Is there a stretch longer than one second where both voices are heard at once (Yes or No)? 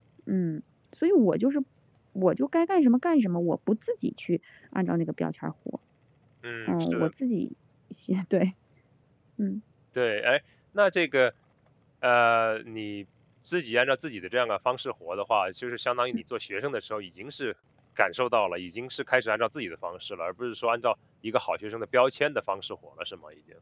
No